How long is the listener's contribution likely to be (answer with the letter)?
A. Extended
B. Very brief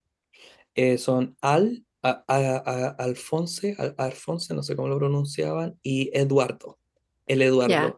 A